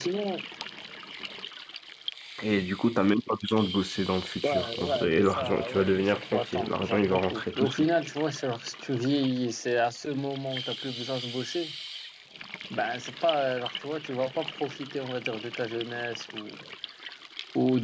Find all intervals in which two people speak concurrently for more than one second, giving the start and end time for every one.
4.4-7.8

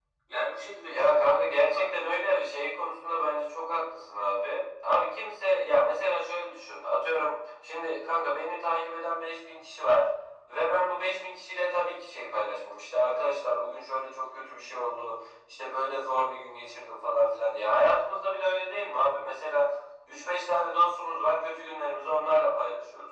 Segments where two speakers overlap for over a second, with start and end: 0.9-2.2

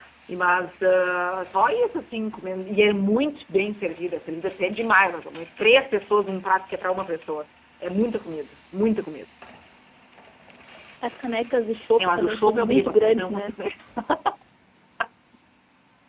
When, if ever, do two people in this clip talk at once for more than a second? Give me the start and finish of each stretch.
12.0-13.5

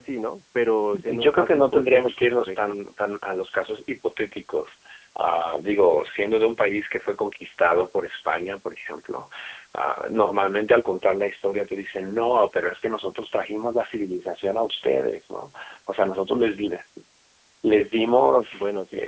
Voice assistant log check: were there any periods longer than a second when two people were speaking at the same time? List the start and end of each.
1.1-2.9

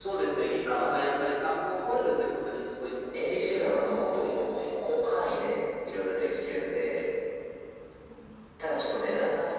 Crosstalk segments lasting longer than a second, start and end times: 3.2-4.6

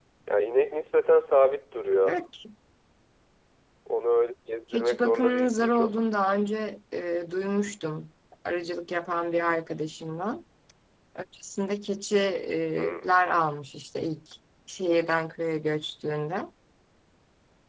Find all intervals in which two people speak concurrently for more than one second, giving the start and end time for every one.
4.7-6.0

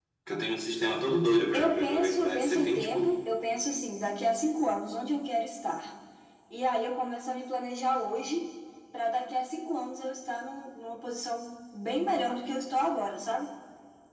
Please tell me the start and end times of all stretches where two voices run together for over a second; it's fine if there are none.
1.5-3.2

